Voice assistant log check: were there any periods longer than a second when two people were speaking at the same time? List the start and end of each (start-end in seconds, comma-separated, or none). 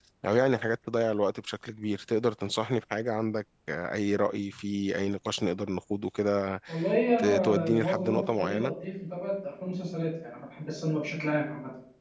7.2-8.7